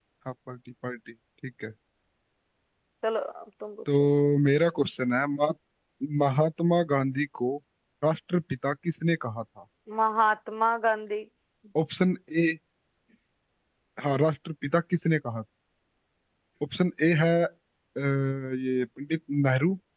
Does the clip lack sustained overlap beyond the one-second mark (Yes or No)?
Yes